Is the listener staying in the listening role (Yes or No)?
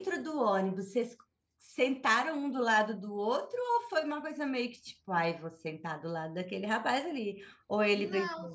No